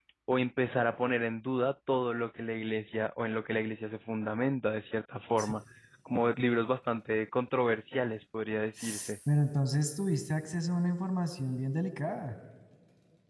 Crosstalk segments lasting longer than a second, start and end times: none

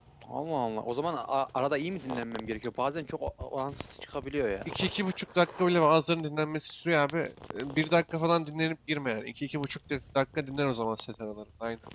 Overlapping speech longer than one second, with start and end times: none

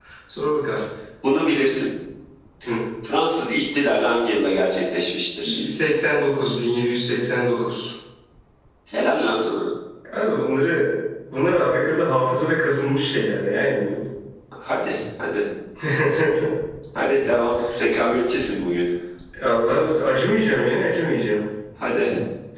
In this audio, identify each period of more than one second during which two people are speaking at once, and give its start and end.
none

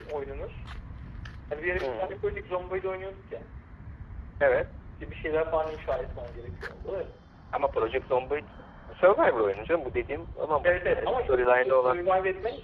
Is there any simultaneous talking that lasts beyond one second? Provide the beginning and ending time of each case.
10.6-12.0

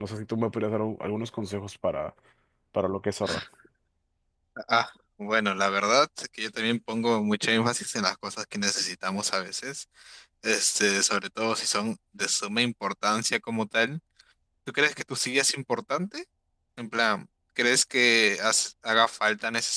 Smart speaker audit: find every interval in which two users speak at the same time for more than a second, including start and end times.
none

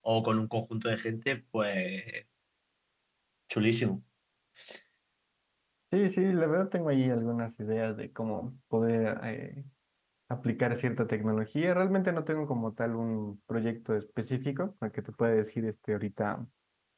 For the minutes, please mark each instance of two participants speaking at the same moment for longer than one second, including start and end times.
none

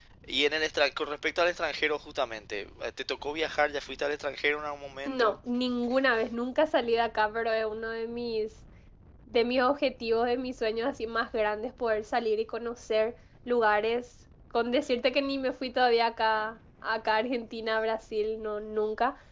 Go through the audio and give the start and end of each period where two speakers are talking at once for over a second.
none

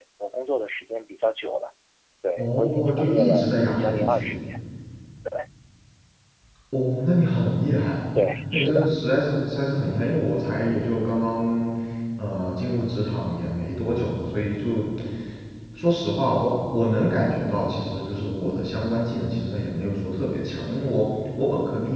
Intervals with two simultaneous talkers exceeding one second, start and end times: 2.4-4.3

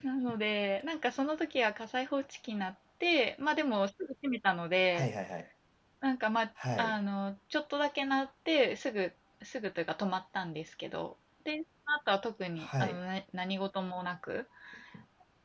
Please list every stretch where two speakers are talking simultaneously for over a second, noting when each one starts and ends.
none

